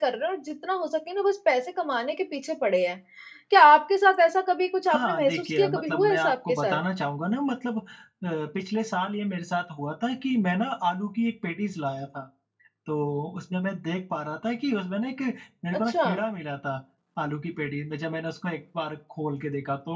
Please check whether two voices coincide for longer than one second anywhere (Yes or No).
Yes